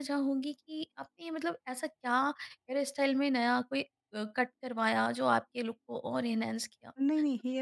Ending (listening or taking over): taking over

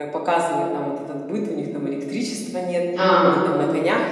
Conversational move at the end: listening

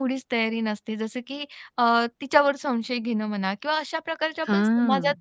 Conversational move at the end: listening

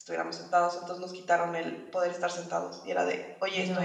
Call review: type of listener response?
listening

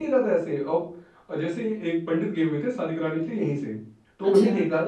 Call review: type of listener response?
listening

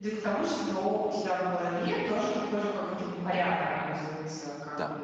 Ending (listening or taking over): listening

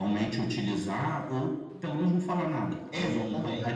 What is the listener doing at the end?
taking over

